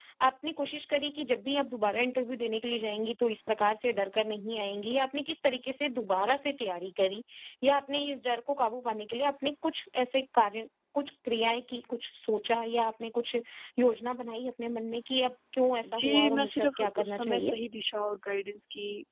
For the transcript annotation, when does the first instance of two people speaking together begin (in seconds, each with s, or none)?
15.8 s